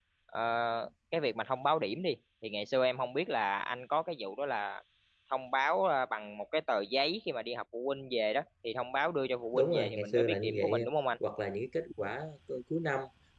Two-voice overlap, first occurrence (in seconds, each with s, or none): 9.5 s